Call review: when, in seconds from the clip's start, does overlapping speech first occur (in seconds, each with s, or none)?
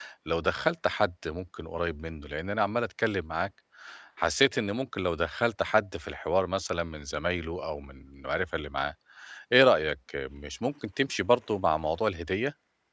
none